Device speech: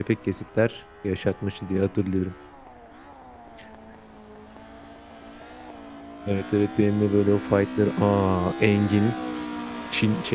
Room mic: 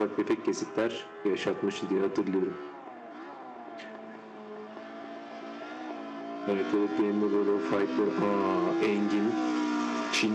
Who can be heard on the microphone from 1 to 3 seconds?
echo only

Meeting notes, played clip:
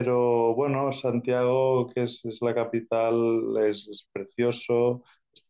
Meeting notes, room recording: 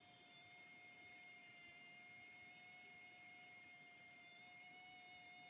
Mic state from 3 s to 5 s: neither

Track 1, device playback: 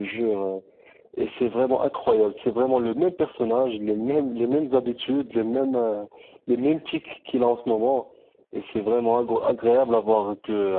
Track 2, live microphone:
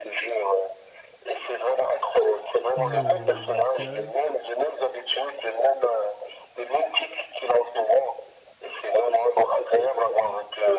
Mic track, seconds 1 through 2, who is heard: echo only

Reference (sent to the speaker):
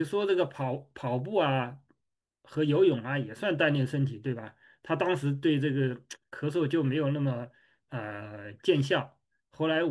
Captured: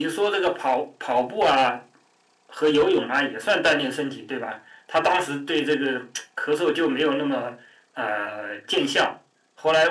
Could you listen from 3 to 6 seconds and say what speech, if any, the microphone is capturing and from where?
echo only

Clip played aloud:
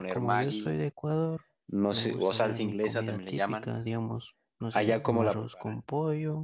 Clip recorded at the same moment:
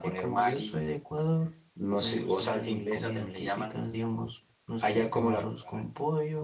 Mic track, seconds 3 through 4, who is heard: echo only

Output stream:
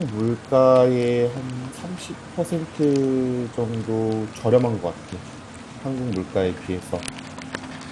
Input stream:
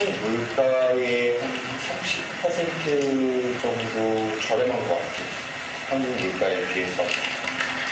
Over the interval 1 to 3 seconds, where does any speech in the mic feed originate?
echo only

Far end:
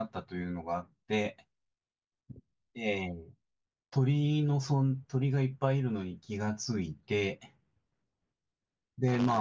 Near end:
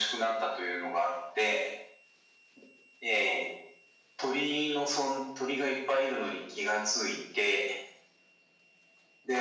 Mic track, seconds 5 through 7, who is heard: echo only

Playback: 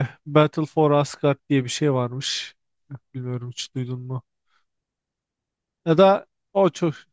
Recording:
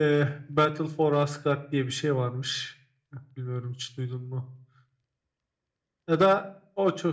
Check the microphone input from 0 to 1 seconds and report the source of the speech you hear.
echo only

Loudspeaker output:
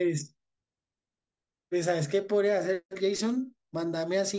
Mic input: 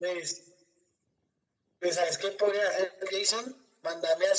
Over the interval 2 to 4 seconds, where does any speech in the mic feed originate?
echo only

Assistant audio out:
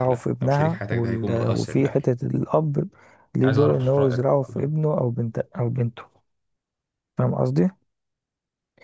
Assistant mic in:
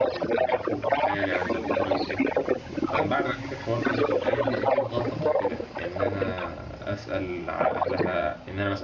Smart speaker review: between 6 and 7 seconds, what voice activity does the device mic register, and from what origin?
both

